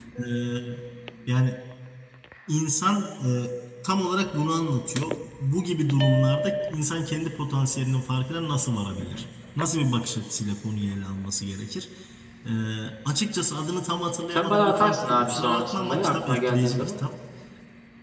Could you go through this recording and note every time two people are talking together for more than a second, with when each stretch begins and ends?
14.3-17.0

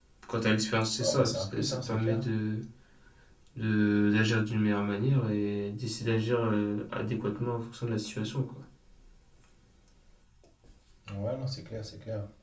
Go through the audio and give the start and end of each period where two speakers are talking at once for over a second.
1.0-2.2

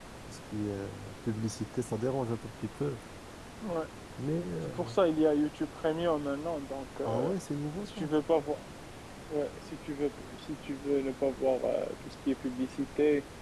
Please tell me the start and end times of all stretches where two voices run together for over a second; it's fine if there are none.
none

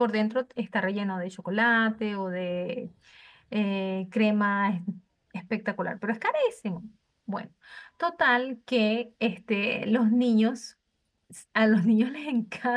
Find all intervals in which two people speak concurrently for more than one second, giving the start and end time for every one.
none

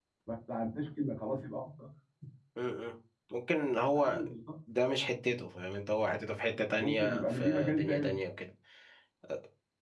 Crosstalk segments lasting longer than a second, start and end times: 6.8-8.2

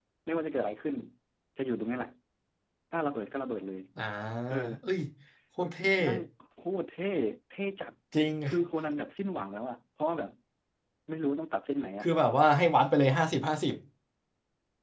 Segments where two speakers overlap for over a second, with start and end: none

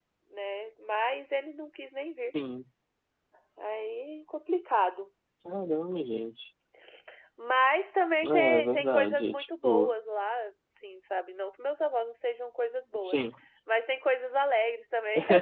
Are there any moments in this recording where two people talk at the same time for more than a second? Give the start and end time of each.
8.2-9.9

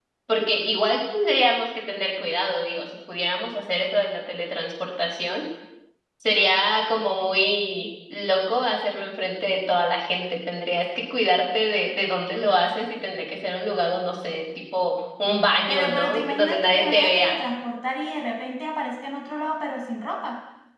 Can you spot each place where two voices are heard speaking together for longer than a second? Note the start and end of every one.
15.7-17.3

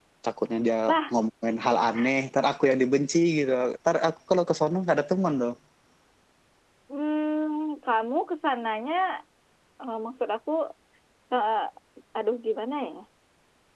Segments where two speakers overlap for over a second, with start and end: none

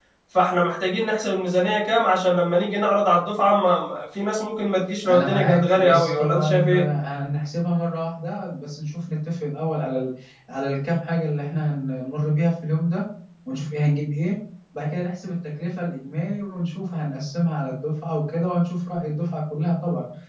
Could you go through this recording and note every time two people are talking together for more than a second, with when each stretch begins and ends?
5.1-6.8

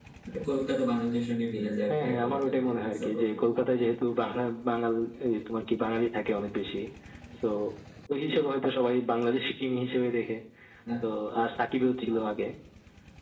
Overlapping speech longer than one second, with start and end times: 1.9-3.3

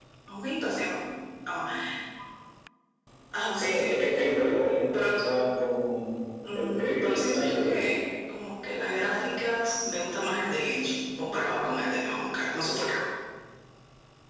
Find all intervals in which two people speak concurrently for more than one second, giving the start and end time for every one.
6.5-7.9

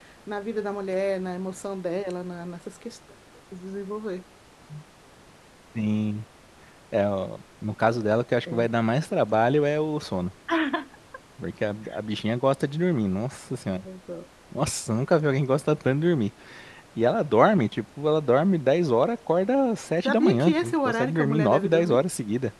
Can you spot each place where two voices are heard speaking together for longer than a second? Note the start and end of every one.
20.0-22.0

